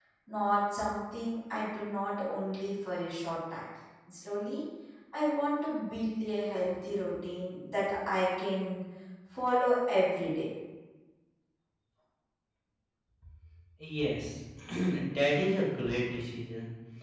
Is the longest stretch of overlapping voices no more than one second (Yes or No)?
Yes